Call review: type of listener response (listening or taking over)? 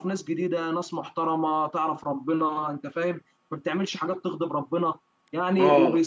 listening